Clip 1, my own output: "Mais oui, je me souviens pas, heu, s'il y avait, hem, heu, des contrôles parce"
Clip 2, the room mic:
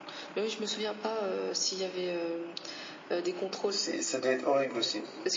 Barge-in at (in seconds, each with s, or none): 3.7 s